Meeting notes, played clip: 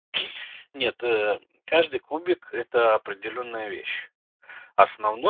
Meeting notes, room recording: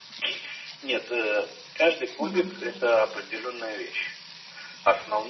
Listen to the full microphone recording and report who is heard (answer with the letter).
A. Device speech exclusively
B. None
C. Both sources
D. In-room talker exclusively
C